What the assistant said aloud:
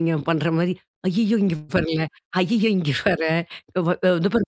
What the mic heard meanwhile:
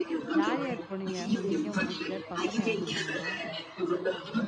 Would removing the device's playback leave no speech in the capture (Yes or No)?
No